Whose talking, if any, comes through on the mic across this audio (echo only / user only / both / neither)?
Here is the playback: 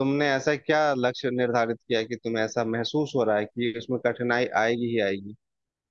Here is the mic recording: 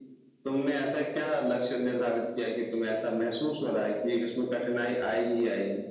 echo only